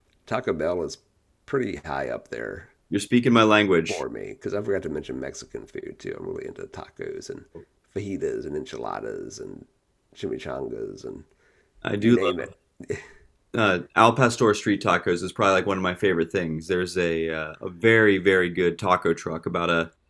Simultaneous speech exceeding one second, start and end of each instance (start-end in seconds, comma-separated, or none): none